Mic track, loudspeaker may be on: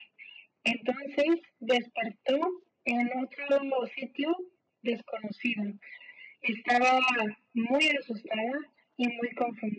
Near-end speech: none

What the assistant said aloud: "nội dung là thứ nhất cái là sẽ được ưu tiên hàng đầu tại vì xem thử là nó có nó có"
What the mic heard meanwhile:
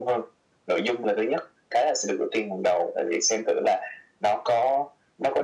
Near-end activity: none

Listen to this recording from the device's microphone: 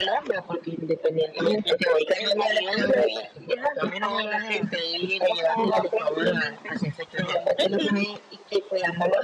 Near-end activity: none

